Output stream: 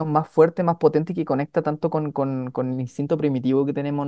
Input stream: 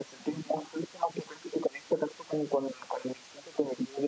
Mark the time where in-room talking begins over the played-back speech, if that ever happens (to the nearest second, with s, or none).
none